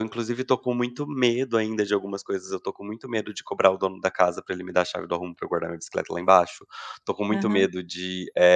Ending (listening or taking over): listening